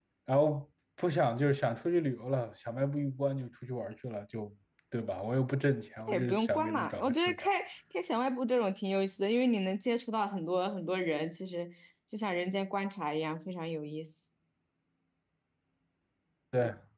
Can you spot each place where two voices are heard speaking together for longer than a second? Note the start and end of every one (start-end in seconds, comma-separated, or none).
6.1-7.3